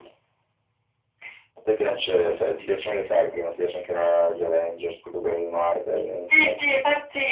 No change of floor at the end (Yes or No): No